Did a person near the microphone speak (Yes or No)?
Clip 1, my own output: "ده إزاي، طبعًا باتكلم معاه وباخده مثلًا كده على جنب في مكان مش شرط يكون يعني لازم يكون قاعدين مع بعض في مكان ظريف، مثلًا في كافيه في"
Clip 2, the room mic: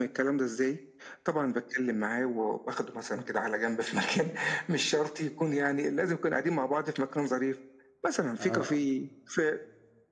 Yes